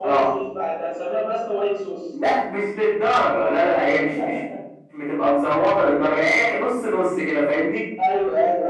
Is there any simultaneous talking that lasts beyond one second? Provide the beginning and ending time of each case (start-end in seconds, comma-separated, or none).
none